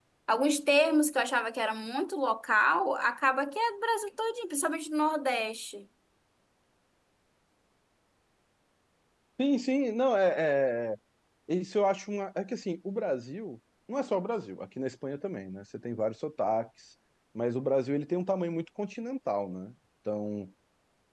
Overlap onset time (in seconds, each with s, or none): none